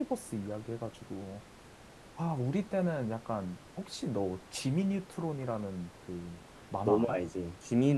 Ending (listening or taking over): taking over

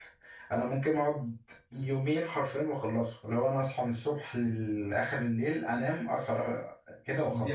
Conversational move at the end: taking over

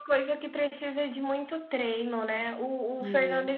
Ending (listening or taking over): listening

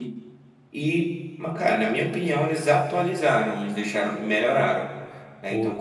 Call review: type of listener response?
listening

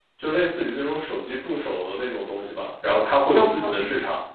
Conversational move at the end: listening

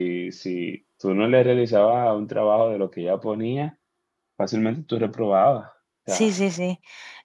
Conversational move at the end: taking over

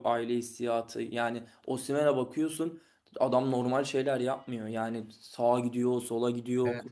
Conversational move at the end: taking over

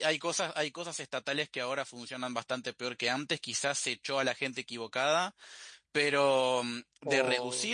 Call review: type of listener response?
listening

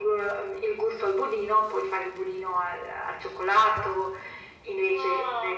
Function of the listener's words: taking over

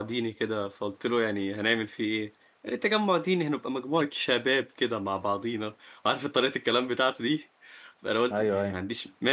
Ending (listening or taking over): listening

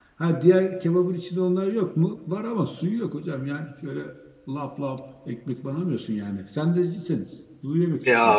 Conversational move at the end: taking over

